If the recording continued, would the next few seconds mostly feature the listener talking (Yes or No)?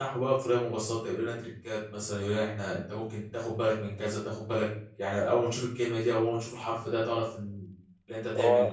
Yes